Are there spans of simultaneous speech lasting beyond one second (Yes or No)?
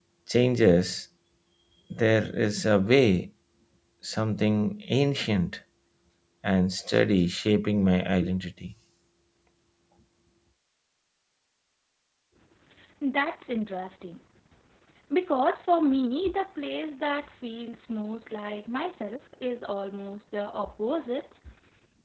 No